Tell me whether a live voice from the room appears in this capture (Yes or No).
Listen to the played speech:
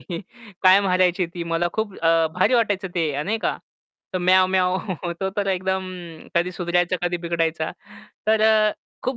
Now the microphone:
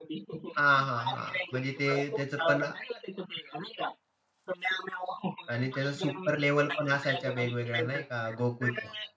Yes